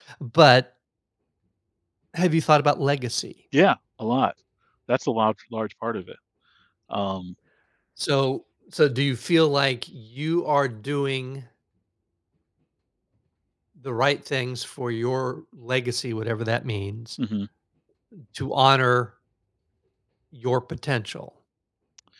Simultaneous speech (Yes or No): No